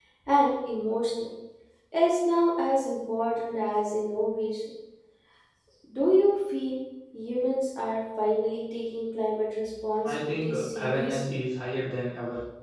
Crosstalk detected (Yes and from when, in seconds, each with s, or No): Yes, from 10.0 s